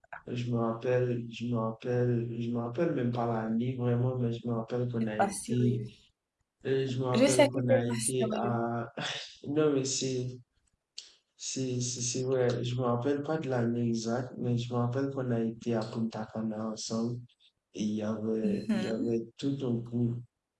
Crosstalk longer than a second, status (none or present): present